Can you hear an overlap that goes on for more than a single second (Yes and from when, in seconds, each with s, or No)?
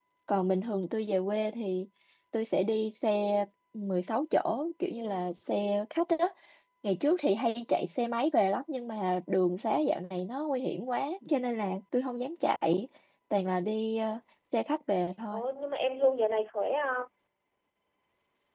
No